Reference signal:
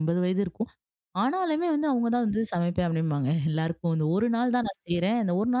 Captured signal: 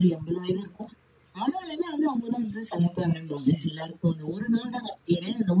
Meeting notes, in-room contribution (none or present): none